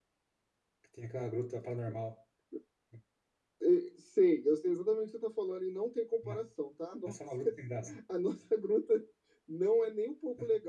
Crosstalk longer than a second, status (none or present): none